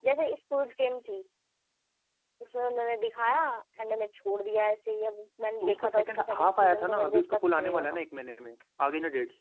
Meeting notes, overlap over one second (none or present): present